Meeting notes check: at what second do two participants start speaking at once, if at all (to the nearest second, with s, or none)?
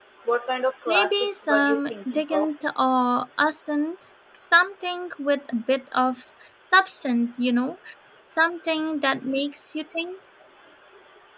1 s